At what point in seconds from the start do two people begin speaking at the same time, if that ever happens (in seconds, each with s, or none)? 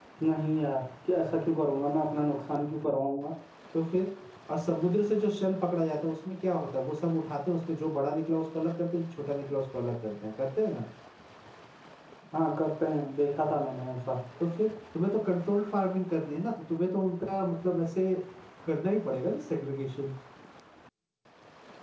none